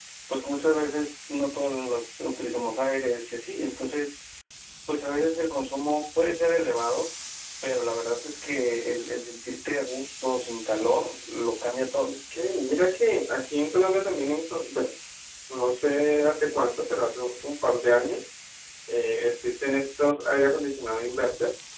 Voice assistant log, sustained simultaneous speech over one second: none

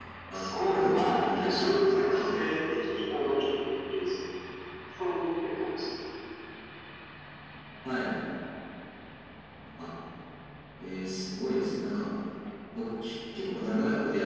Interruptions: present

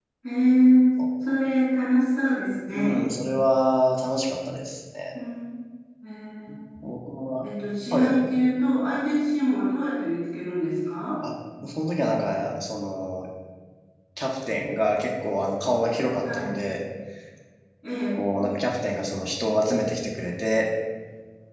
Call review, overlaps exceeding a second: none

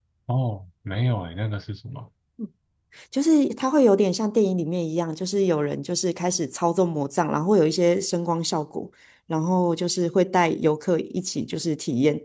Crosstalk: none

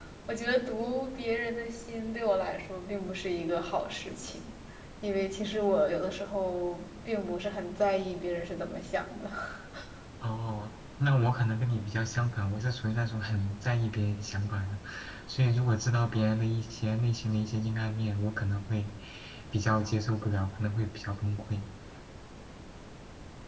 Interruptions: none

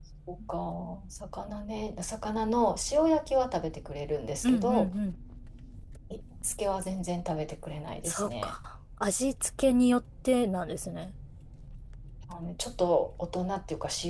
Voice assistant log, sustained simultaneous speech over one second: none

